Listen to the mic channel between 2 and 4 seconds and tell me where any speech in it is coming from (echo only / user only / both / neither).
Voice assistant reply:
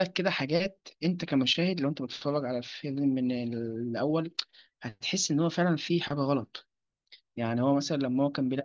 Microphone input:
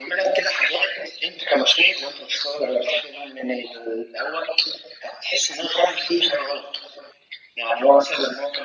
echo only